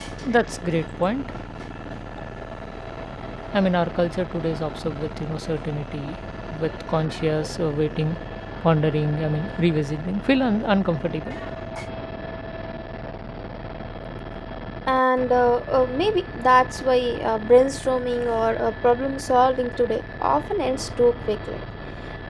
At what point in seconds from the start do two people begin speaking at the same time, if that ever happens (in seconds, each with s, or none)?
none